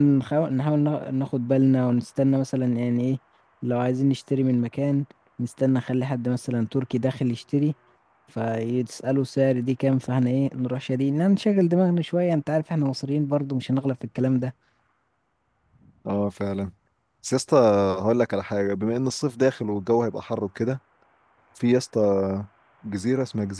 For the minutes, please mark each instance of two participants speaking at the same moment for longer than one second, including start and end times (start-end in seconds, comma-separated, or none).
none